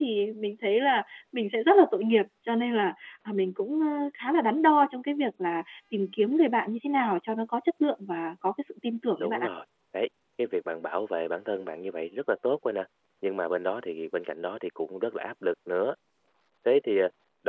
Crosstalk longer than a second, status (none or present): none